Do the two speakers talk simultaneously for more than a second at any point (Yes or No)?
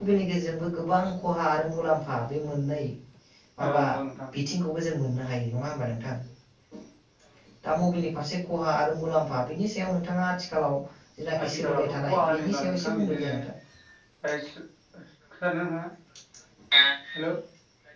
Yes